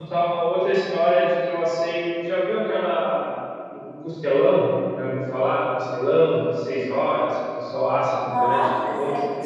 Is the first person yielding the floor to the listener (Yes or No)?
Yes